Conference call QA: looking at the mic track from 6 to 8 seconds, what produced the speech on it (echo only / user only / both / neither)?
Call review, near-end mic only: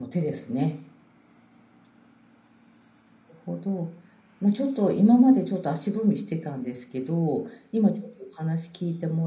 user only